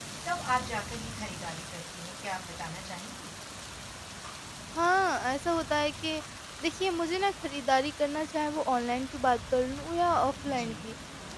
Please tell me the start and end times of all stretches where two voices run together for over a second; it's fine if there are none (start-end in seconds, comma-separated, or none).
none